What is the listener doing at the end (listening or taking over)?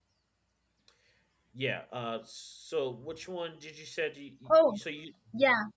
taking over